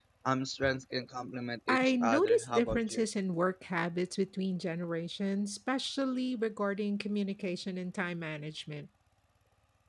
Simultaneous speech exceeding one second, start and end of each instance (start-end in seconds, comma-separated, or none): 1.7-3.0